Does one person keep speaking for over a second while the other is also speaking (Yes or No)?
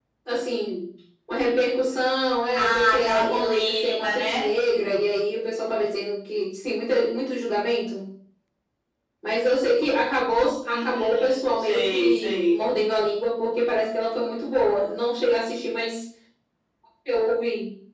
Yes